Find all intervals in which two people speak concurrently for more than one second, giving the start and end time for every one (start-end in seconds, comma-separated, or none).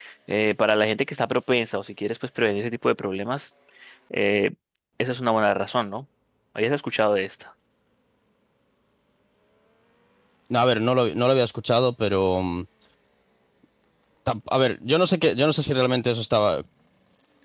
none